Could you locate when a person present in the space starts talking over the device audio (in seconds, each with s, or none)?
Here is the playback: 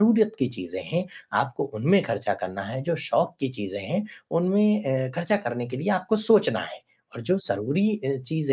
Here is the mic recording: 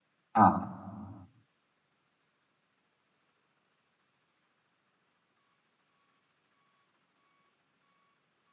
0.4 s